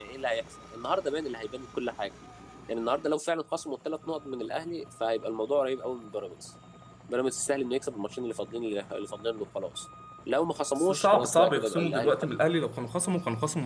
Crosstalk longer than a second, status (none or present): present